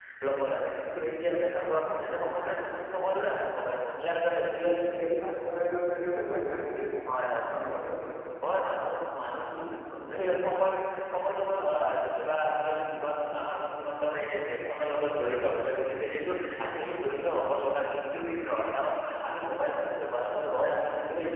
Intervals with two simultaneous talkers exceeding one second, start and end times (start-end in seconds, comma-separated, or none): none